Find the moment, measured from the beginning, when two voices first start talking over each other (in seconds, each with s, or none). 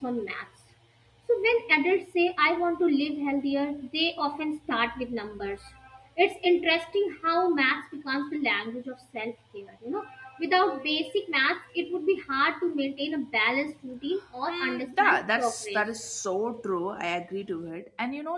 14.5 s